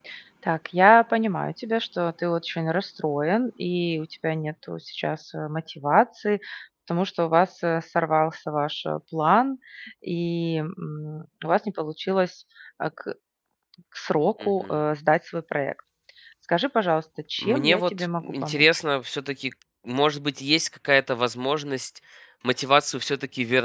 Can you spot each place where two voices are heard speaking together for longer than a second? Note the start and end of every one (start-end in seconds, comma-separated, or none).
17.4-18.7